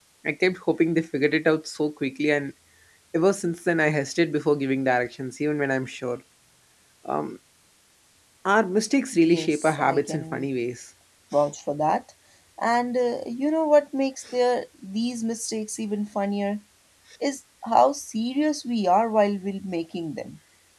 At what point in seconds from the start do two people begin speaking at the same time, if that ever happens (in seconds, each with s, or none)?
9.2 s